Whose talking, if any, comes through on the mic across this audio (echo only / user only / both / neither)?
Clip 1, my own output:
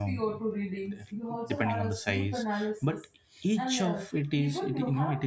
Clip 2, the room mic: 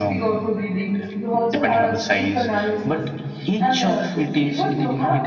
echo only